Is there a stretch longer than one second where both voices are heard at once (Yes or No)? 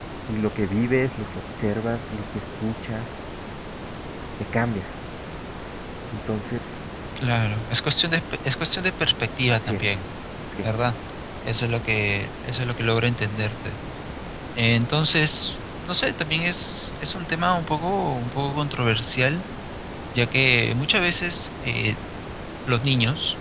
No